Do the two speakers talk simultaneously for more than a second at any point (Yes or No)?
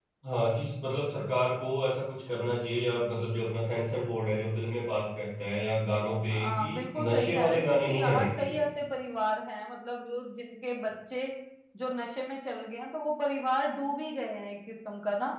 Yes